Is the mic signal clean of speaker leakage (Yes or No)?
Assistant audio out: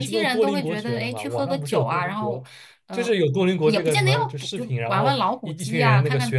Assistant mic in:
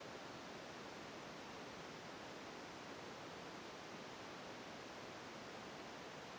Yes